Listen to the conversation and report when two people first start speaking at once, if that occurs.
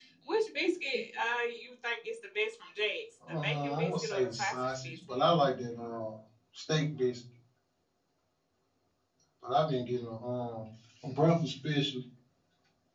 3.2 s

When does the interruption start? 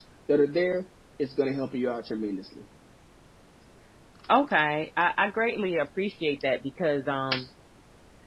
none

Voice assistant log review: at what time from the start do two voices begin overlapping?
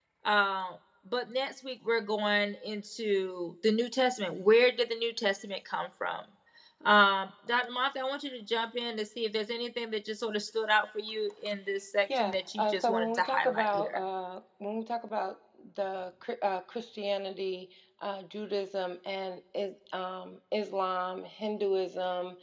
12.1 s

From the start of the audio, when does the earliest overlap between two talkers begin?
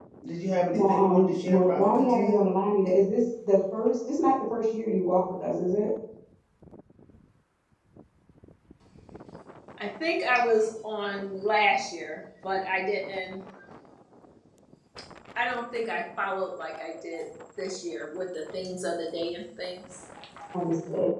0.7 s

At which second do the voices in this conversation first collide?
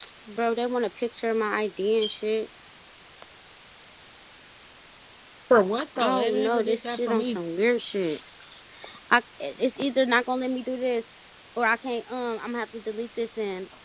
6.0 s

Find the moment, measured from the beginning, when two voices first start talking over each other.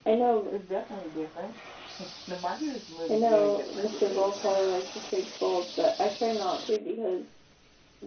3.1 s

